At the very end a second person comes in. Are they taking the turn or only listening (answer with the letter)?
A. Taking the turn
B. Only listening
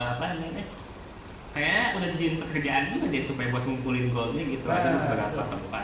A